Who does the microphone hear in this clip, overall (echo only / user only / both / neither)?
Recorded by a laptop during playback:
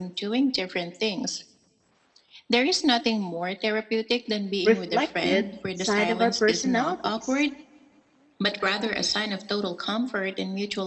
both